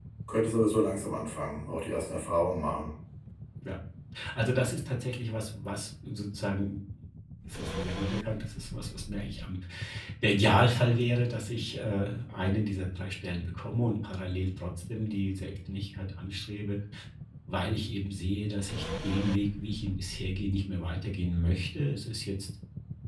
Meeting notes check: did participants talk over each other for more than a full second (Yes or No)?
No